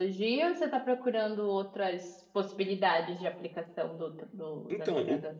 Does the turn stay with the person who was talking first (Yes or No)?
No